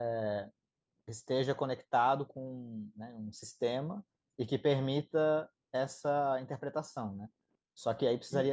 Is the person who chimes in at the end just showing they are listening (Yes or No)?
Yes